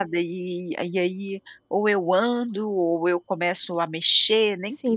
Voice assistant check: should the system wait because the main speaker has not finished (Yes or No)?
No